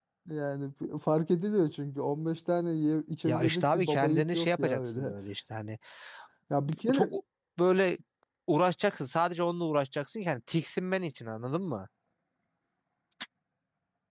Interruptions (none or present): present